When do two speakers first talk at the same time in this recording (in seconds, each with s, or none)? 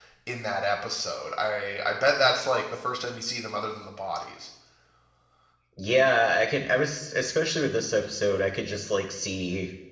none